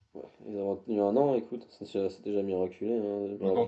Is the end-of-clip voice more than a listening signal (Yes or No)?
Yes